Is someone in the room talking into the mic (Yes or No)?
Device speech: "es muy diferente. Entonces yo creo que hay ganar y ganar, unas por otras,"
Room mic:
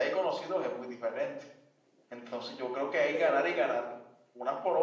Yes